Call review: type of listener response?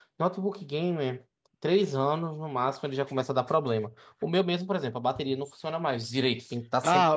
taking over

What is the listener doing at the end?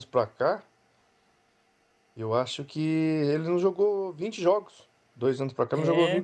listening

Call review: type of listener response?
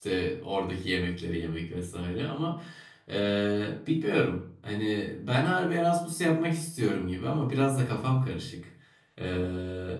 listening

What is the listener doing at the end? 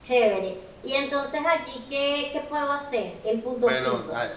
taking over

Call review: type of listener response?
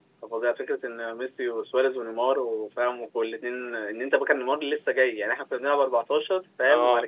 listening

